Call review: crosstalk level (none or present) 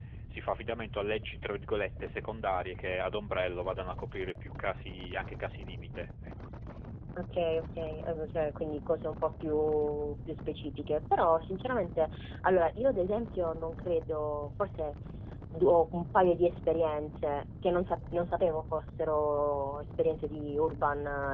none